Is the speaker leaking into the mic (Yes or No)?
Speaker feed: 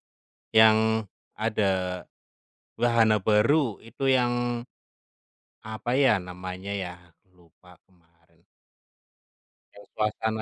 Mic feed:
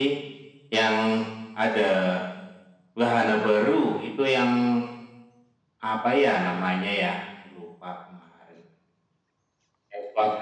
Yes